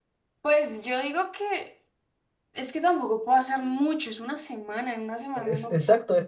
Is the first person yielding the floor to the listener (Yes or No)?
Yes